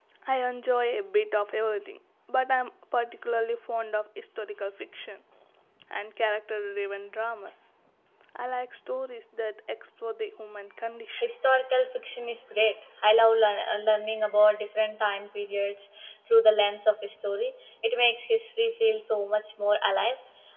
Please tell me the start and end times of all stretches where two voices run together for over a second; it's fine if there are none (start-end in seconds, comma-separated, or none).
none